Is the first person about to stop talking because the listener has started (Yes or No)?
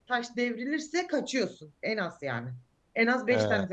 No